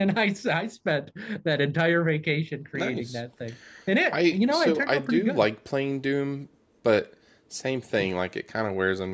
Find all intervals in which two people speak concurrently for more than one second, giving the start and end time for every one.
4.1-5.5

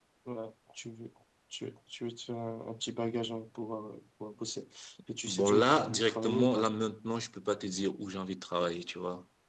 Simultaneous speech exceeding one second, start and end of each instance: 5.3-6.7

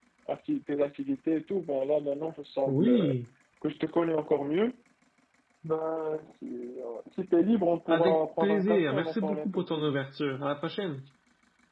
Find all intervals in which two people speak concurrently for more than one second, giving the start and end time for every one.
7.9-9.9

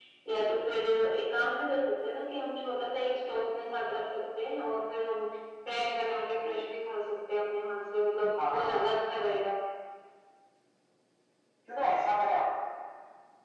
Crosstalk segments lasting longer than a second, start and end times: none

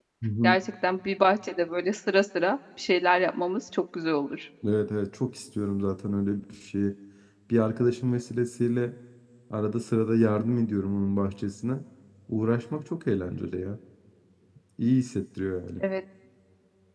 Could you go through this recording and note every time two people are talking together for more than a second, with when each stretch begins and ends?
none

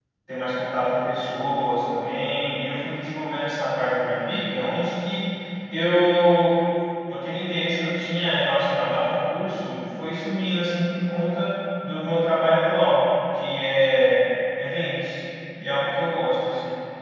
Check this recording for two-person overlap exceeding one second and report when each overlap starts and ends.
none

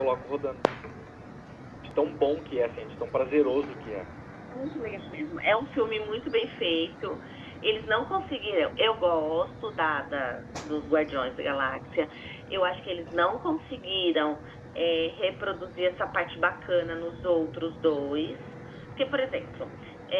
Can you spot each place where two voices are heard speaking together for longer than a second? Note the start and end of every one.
none

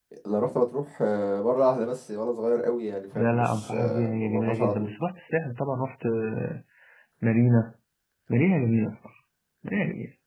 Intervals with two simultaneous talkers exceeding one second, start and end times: 3.1-4.9

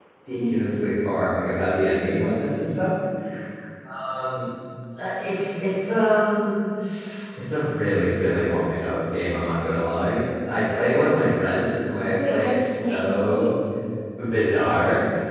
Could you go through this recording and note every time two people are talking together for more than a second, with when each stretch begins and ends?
12.3-13.5

